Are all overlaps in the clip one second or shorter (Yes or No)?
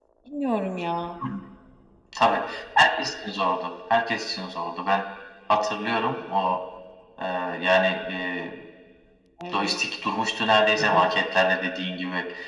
Yes